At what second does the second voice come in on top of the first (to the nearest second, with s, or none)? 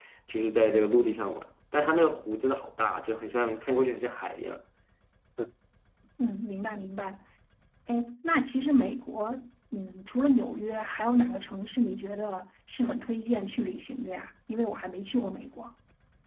none